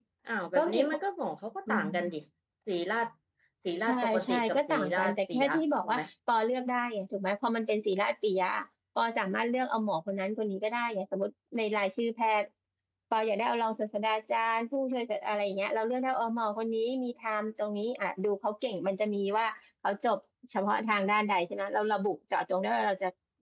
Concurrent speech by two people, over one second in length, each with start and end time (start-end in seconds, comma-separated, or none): 3.9-6.0